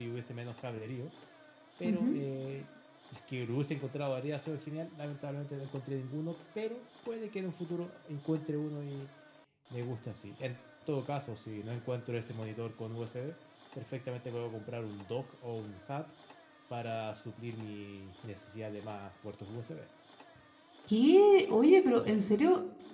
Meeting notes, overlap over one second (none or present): none